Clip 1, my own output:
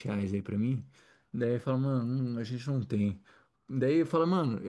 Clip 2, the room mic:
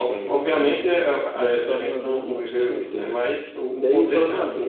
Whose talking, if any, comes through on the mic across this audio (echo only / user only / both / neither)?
both